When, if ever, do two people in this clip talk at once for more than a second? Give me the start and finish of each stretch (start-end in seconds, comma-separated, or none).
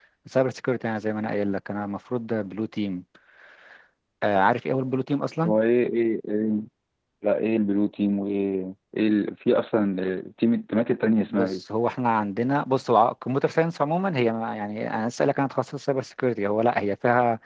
none